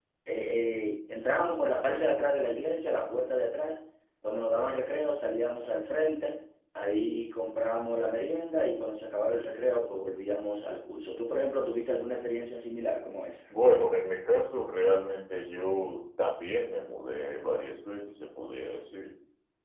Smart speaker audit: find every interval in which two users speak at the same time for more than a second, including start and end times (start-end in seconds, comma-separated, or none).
none